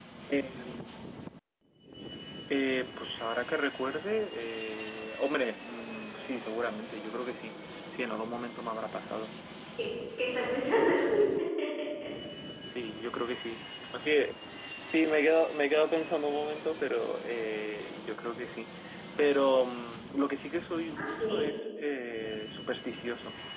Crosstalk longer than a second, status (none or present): none